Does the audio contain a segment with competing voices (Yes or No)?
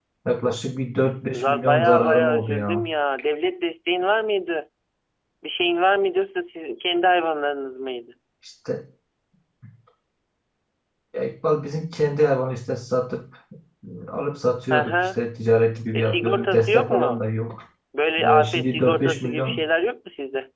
Yes